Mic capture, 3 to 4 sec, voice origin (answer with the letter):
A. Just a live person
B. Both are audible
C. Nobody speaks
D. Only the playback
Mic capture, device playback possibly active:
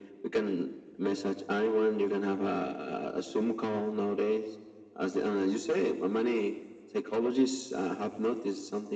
D